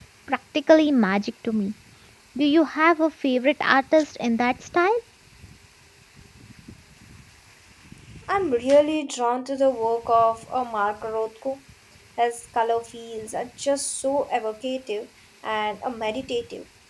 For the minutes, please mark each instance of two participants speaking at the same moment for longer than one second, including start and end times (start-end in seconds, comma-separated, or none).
none